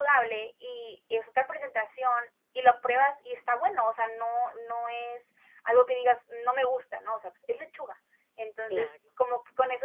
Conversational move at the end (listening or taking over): listening